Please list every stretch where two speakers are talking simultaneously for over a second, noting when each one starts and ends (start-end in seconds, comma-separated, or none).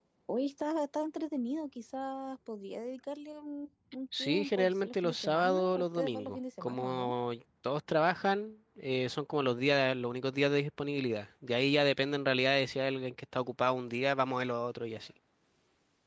4.2-7.1